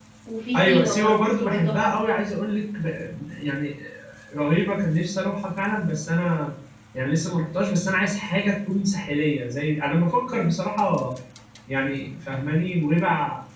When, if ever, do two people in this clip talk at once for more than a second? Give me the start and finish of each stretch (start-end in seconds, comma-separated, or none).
0.5-2.0